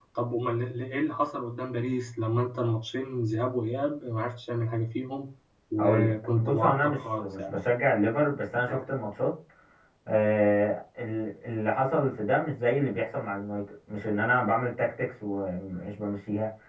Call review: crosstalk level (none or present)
present